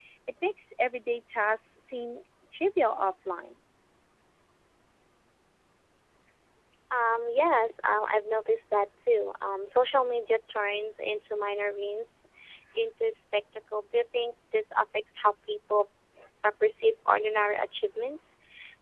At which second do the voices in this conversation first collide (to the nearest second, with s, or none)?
none